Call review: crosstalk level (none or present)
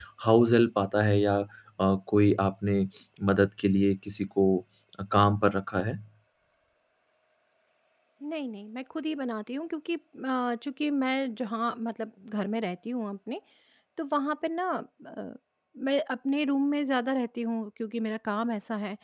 none